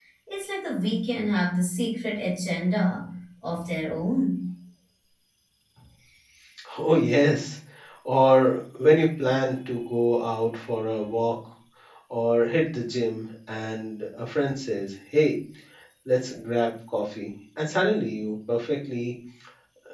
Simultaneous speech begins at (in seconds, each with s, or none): none